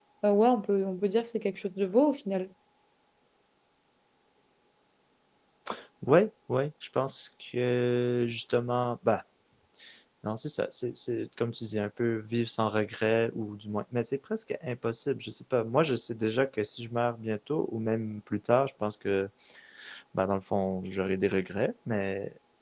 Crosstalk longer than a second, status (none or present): none